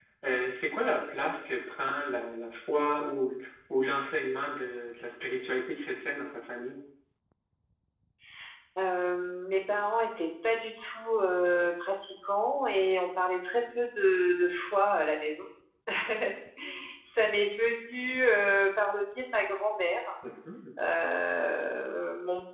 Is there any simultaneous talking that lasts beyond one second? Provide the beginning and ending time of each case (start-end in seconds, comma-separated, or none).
none